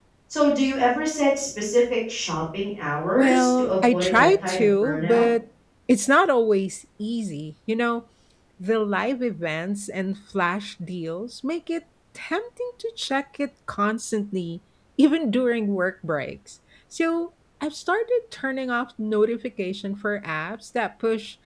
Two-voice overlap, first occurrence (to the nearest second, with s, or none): 3 s